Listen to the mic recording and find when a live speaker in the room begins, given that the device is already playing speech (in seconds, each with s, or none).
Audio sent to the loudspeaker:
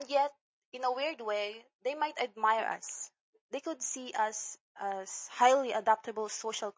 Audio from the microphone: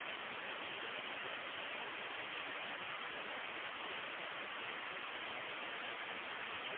none